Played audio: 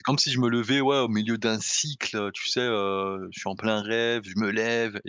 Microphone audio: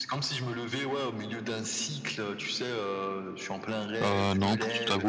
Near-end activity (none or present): present